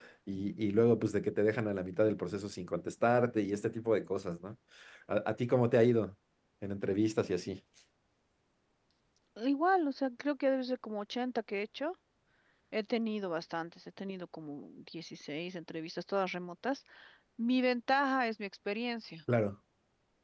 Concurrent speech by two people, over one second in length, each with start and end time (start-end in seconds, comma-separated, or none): none